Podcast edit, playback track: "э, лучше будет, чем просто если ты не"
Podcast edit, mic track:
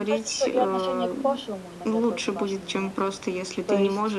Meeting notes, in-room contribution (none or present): present